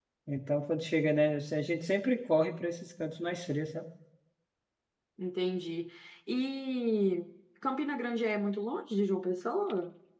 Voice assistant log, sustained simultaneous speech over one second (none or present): none